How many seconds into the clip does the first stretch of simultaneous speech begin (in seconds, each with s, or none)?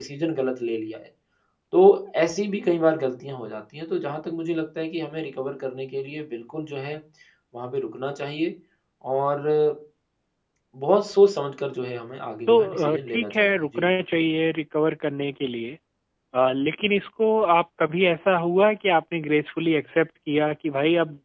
12.5 s